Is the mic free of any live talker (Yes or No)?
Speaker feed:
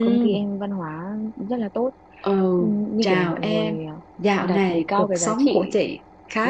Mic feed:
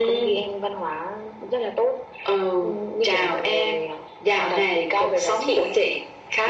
Yes